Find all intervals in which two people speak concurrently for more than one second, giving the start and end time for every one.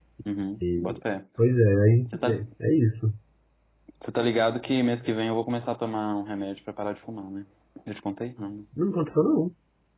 none

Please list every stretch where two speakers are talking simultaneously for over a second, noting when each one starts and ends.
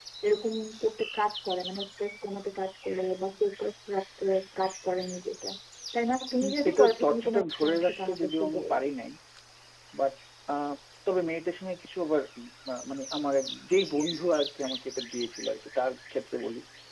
6.4-8.7

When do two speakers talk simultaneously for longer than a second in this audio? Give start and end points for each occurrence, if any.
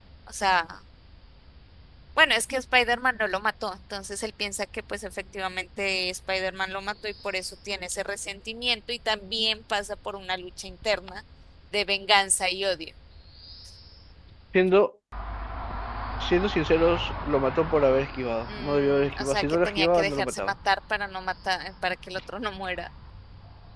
18.6-20.4

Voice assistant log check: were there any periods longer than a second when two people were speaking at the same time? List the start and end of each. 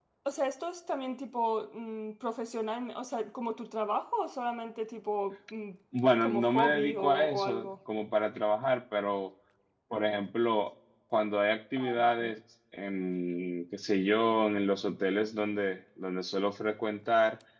6.2-7.7

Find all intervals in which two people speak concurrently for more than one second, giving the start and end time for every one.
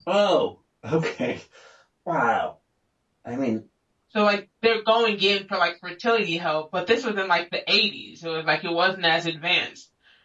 none

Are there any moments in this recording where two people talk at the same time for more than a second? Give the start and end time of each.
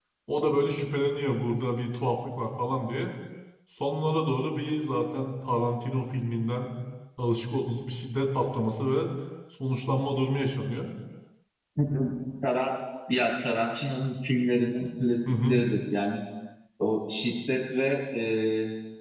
none

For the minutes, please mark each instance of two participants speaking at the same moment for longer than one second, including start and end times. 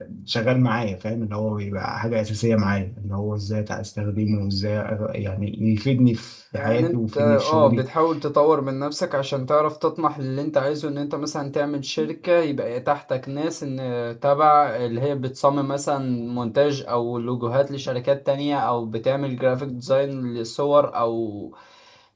6.5-7.8

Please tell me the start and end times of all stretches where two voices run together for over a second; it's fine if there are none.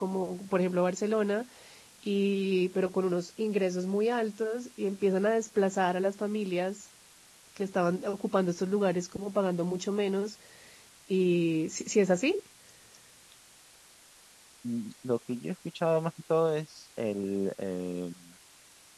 none

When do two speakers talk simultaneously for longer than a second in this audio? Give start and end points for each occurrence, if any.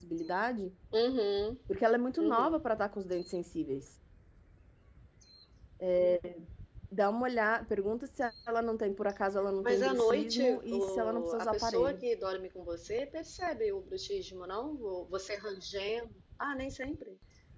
9.6-12.0

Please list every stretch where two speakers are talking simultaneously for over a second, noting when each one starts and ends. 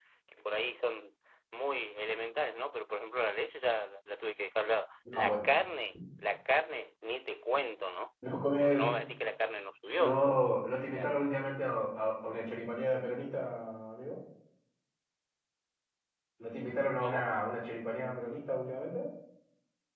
none

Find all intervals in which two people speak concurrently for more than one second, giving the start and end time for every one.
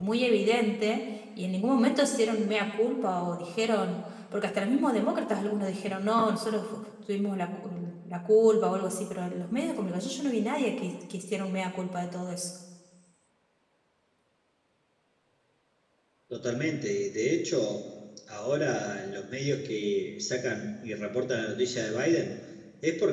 none

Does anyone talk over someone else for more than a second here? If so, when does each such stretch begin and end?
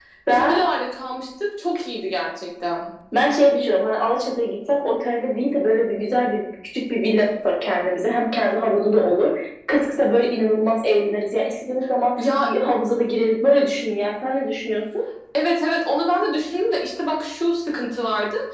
none

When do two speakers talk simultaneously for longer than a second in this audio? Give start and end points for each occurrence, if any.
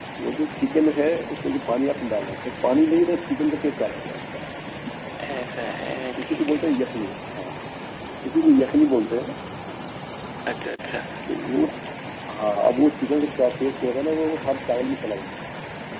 none

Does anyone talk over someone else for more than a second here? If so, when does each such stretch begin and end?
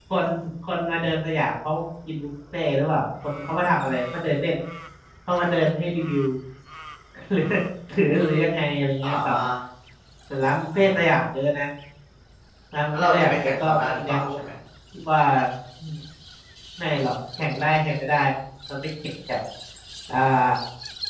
12.9-14.4

